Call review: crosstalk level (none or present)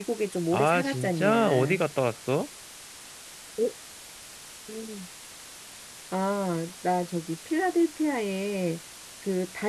present